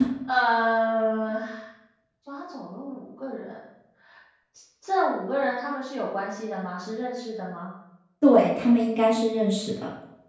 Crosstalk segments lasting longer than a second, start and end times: none

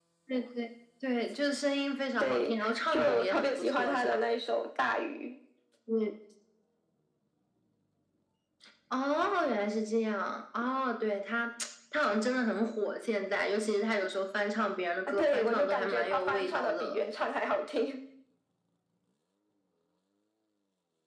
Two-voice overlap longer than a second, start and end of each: 2.2-4.2, 15.1-17.0

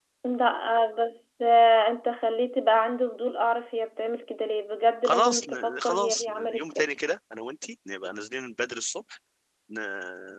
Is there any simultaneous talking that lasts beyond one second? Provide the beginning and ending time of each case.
5.0-6.8

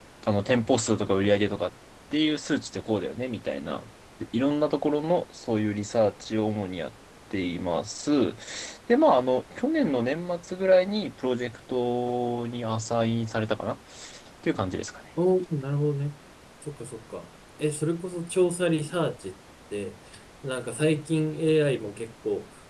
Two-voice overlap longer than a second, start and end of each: none

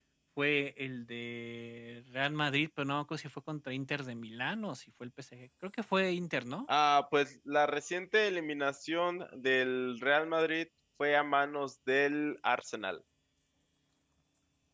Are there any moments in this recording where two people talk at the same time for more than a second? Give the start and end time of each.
none

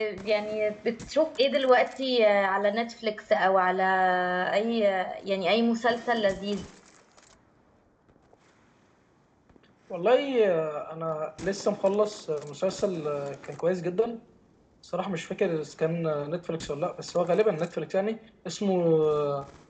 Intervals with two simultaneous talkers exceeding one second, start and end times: none

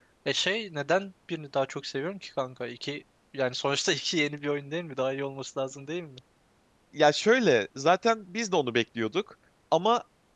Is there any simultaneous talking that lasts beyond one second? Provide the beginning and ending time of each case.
none

